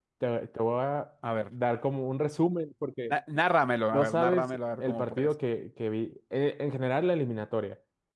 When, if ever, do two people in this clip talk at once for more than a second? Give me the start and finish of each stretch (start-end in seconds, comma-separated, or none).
3.9-5.3